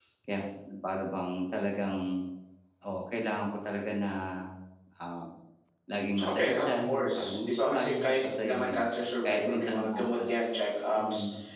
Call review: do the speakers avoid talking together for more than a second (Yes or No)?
No